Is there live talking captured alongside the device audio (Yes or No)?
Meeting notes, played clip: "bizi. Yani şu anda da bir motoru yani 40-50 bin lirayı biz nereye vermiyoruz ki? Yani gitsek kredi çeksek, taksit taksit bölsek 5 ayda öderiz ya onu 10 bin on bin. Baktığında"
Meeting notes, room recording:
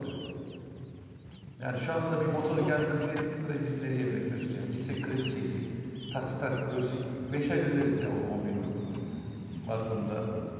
No